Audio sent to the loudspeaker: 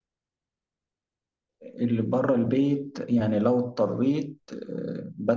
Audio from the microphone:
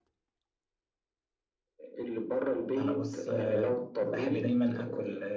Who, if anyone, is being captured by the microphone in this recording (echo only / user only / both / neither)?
both